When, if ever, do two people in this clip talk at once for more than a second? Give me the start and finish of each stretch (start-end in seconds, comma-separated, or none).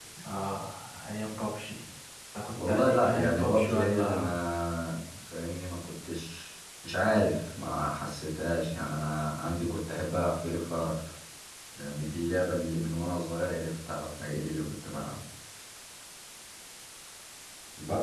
2.7-4.4